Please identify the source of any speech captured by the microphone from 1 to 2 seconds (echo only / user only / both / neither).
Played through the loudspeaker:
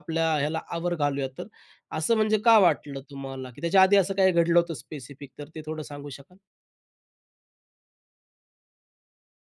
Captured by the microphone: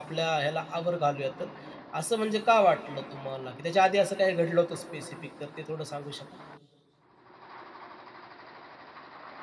echo only